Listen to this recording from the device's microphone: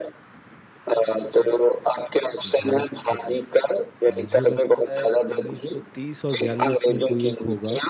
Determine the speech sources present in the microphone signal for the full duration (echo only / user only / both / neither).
both